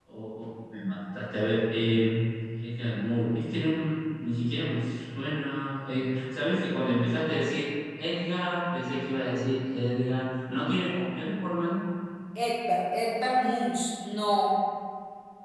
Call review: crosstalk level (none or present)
none